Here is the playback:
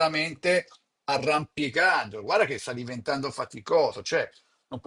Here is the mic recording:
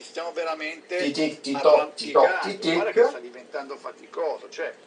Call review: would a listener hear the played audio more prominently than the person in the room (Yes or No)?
No